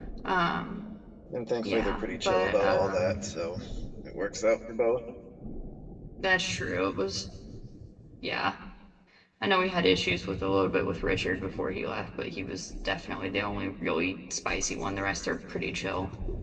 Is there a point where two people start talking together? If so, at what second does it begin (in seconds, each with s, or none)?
1.6 s